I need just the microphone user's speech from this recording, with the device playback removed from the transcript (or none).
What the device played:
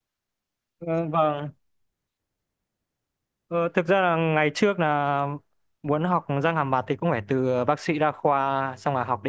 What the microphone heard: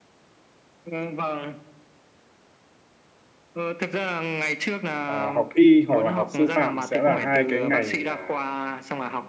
à, học y hoặc là học sư phạm sẽ là hai cái ngành à,